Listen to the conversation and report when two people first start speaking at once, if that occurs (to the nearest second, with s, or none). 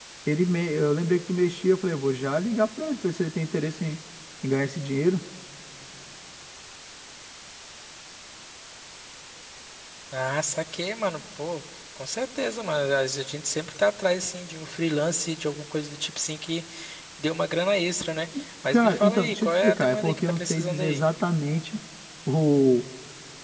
19 s